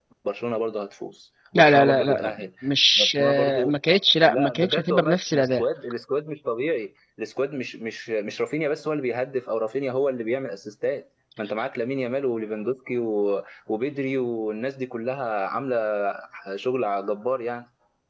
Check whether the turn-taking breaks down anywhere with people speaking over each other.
Yes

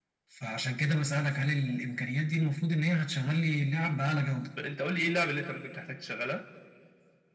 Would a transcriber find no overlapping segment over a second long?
Yes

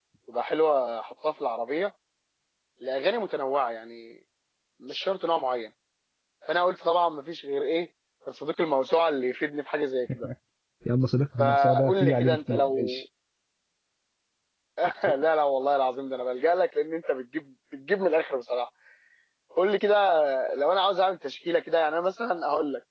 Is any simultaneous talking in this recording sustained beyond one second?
Yes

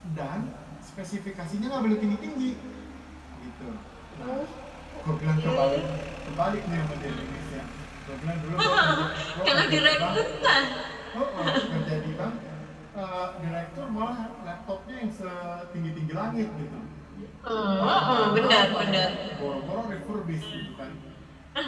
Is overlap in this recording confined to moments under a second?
No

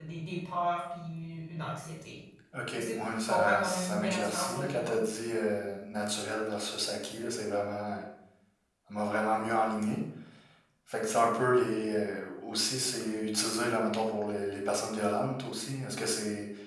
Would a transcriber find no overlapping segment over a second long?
No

